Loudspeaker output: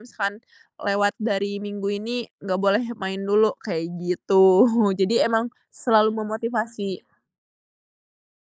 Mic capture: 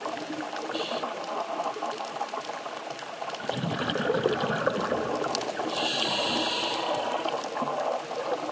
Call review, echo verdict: none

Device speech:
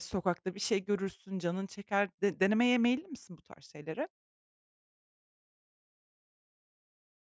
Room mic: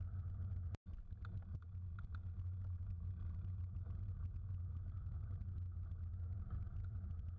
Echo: none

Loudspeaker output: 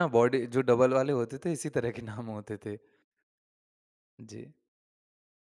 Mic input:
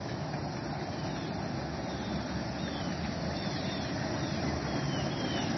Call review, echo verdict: none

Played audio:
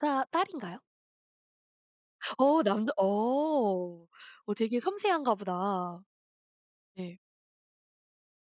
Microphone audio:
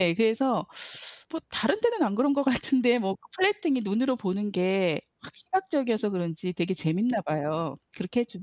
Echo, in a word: none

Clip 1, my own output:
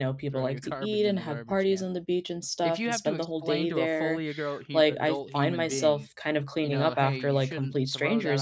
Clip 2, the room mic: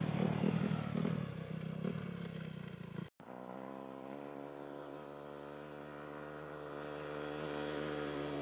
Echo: none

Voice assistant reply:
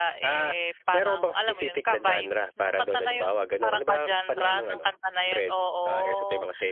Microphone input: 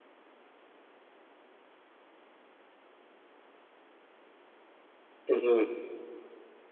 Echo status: none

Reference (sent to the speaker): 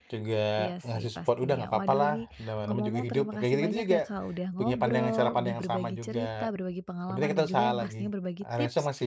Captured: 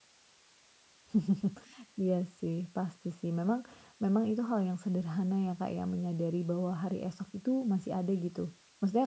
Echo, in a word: none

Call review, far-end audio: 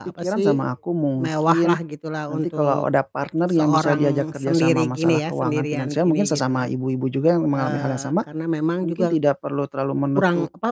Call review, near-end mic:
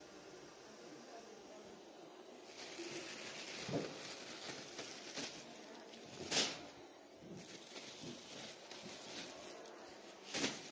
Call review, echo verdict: none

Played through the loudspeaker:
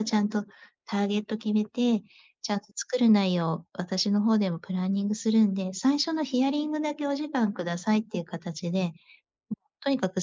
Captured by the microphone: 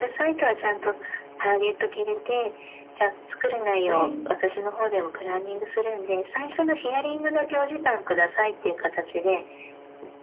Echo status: present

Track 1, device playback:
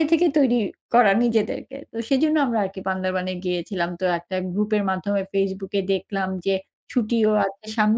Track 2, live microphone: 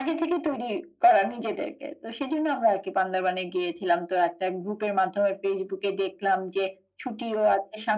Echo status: present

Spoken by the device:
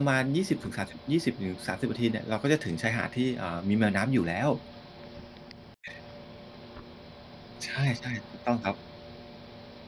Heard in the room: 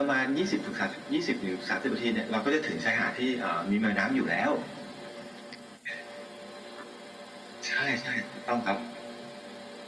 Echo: present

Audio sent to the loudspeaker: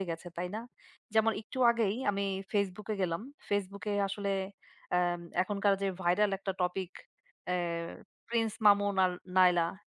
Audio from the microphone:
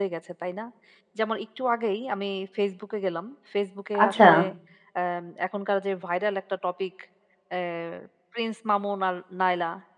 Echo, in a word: present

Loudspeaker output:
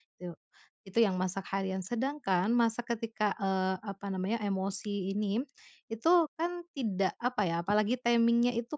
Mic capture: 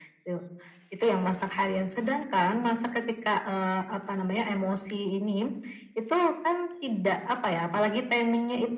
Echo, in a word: present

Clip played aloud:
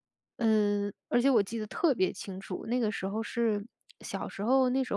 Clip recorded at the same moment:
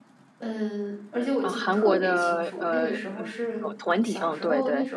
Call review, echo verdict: present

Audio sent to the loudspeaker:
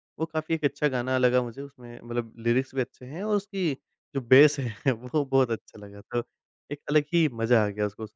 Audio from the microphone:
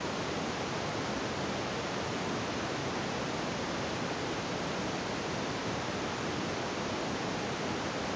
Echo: none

